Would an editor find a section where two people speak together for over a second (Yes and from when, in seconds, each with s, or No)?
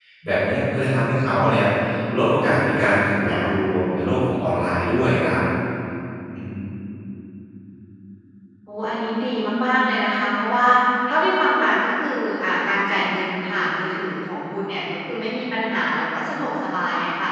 No